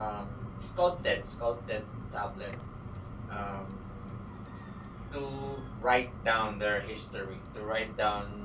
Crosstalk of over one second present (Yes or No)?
No